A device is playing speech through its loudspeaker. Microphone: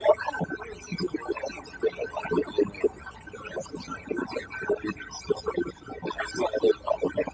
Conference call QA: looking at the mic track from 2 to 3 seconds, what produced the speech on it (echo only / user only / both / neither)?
echo only